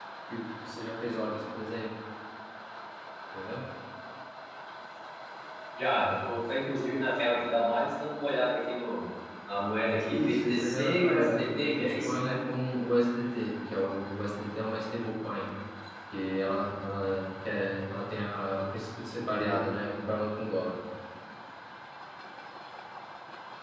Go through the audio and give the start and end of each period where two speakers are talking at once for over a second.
10.1-12.3

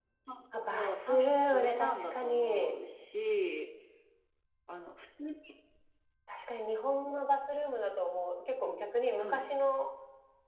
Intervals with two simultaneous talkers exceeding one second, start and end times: 0.5-2.8

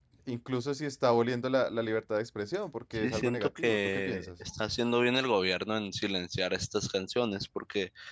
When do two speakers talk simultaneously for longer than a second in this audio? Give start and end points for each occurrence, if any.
2.9-4.3

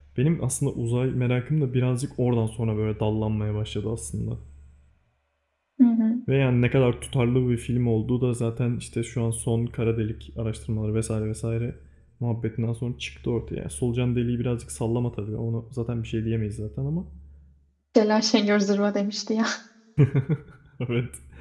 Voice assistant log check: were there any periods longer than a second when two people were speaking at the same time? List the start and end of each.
none

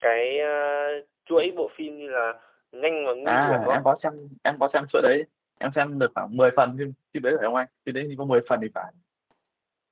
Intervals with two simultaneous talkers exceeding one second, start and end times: none

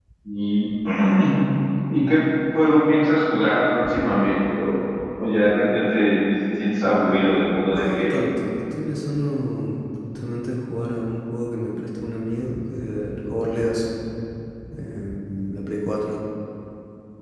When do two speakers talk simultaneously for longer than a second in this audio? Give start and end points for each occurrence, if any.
none

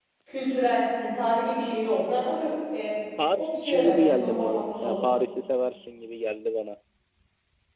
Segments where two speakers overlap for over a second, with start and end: 3.4-5.0

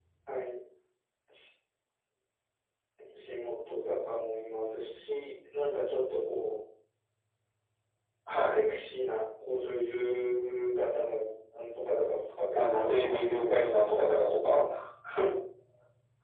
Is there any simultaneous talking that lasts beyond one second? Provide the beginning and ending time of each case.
12.6-13.9

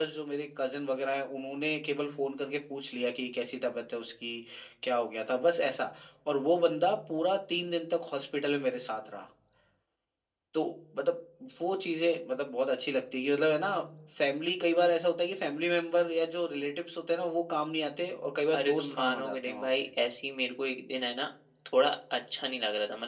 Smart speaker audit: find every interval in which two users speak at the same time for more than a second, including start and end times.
18.5-19.9

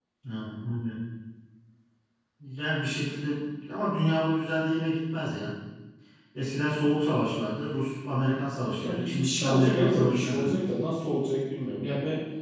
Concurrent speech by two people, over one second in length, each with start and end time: 8.8-10.6

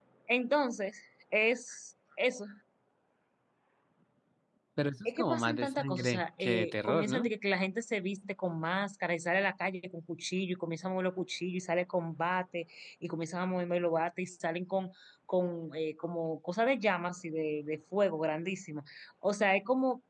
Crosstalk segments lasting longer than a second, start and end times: 5.0-7.3

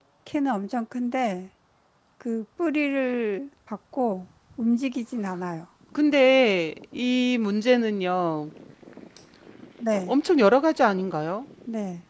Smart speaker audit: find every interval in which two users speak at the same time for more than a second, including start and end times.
none

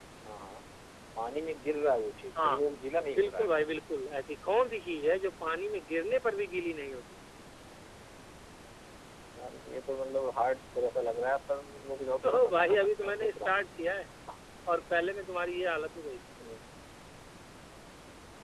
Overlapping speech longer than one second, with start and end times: 12.3-13.6

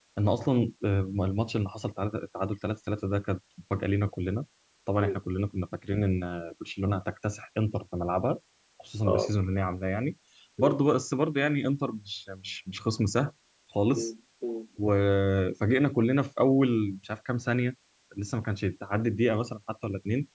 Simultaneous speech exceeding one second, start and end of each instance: none

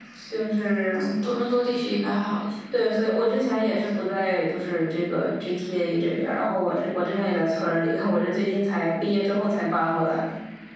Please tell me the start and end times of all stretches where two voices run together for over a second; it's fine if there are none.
none

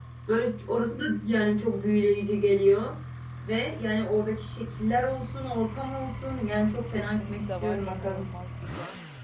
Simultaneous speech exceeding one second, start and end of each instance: 6.9-8.3

